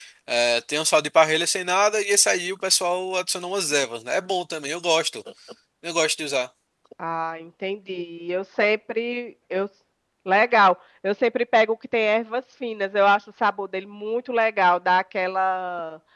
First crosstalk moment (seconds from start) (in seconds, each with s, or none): none